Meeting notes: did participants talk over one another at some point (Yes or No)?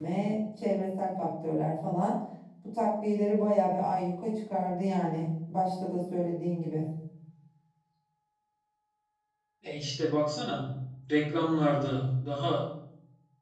No